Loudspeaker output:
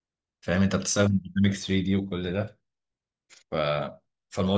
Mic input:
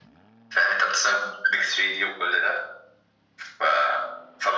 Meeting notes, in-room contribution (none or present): none